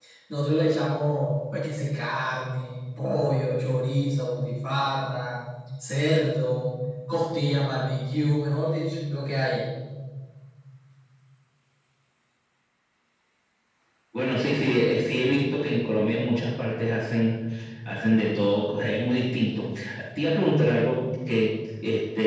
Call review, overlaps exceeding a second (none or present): none